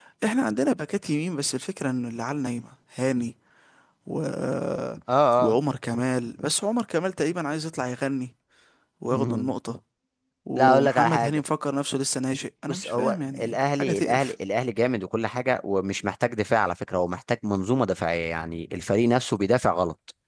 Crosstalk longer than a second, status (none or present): present